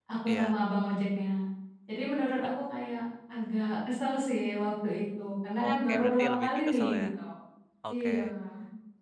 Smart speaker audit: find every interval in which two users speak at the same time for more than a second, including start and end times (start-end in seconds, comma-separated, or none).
5.6-7.0